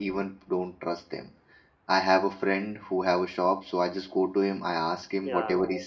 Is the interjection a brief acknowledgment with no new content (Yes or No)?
Yes